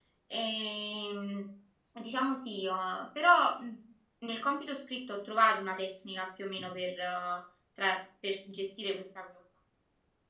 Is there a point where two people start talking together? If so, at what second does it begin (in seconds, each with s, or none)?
none